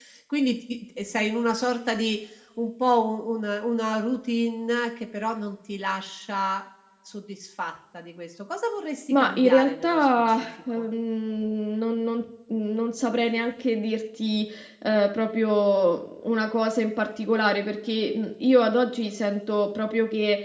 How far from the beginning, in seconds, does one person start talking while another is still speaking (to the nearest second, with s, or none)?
9 s